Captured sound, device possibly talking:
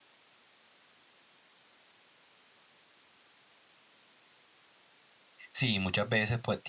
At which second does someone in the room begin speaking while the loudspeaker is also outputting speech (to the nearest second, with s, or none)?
6 s